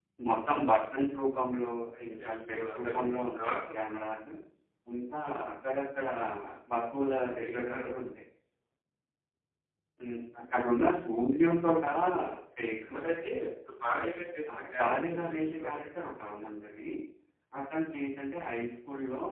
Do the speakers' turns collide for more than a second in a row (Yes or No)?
Yes